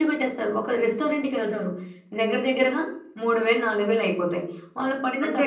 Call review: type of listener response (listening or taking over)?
listening